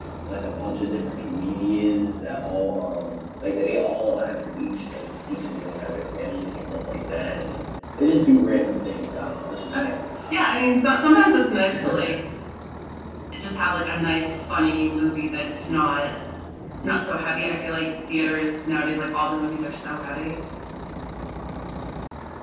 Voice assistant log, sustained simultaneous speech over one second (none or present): none